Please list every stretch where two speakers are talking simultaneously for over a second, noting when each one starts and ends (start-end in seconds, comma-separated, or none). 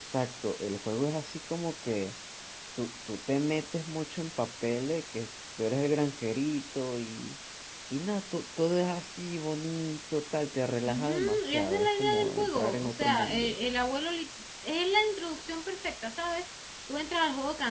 10.9-13.6